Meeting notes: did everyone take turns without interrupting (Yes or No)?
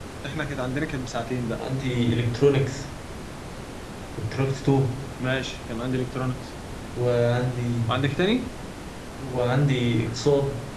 Yes